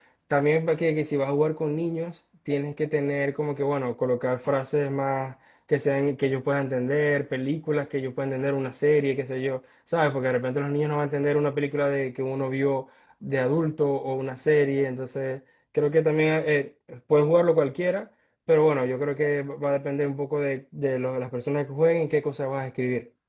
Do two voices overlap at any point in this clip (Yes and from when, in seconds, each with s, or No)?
No